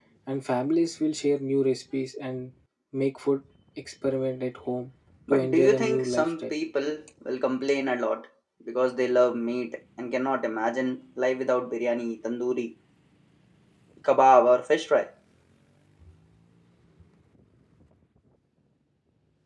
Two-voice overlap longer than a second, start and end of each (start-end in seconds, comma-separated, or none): 5.3-6.5